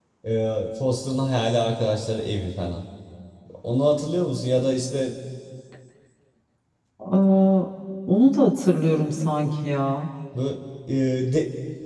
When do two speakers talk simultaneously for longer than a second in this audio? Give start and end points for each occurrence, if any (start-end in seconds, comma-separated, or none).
none